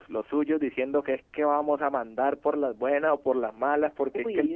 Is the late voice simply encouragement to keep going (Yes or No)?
Yes